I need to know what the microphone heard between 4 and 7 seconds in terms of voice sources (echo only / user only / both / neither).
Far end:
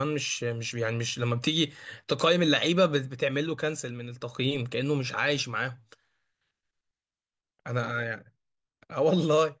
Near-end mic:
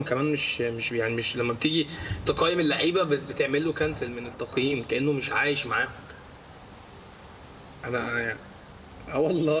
echo only